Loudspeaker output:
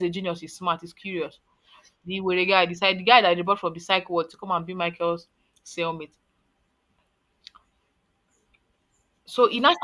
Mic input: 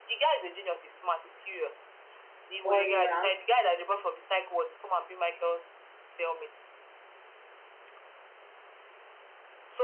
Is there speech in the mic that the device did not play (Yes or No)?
Yes